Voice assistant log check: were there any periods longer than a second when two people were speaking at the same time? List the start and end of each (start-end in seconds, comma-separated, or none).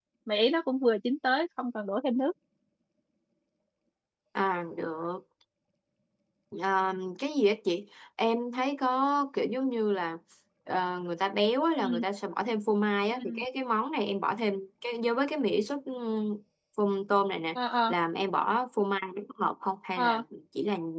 none